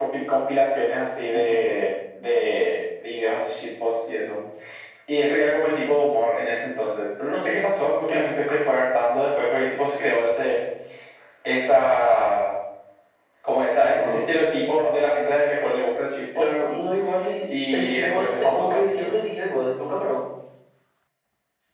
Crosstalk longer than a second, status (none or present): present